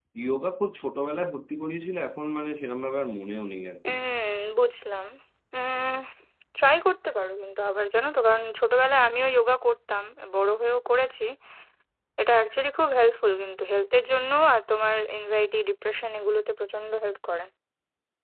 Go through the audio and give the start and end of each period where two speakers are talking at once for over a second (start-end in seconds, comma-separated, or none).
none